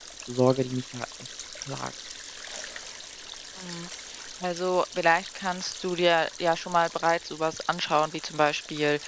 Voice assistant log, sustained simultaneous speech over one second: none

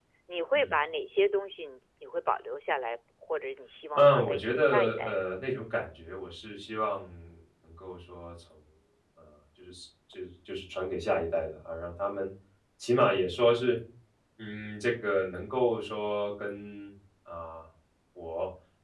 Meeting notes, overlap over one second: present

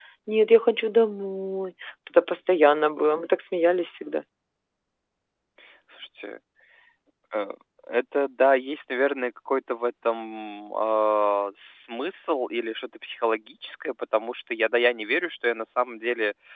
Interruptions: none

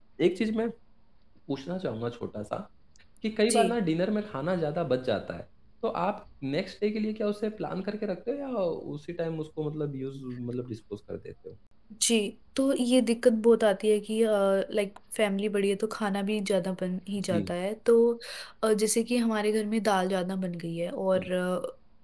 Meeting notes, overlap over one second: none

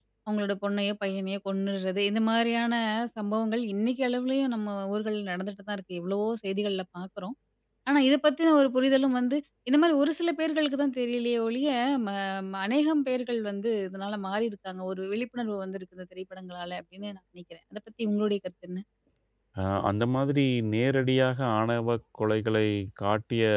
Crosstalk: none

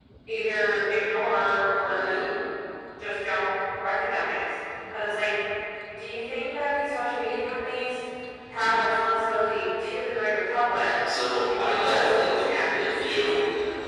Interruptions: present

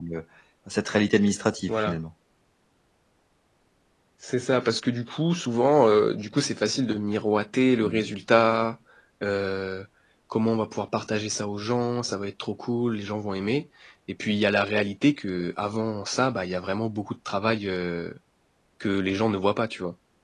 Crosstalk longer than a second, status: none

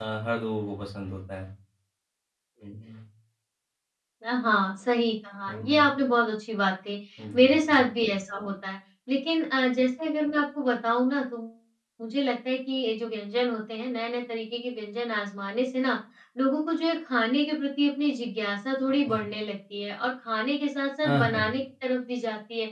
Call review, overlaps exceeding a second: none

